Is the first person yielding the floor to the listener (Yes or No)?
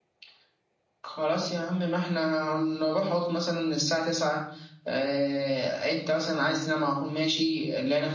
No